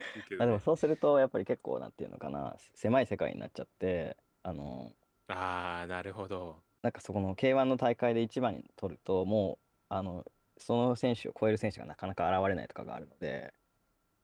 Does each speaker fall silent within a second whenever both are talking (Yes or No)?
Yes